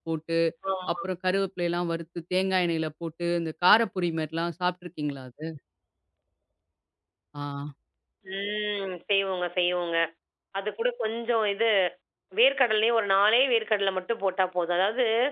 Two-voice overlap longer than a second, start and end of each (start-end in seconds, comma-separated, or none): none